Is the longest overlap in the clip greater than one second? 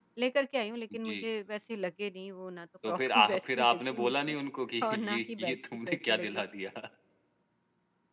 Yes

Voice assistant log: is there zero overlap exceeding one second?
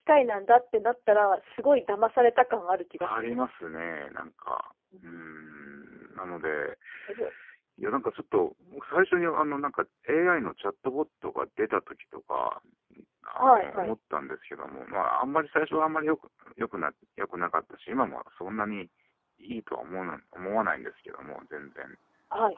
Yes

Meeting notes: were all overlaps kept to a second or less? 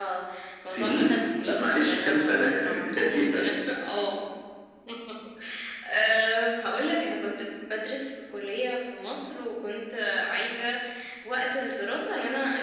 No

